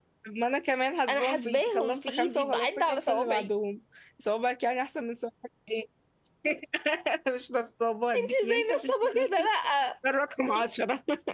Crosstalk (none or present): present